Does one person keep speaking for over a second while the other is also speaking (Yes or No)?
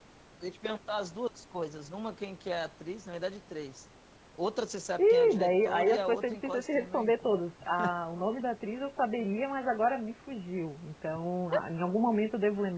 Yes